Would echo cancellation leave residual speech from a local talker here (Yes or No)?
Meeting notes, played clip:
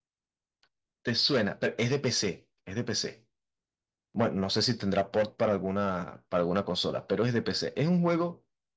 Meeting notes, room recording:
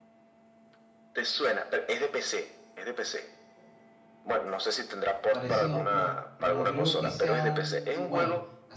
Yes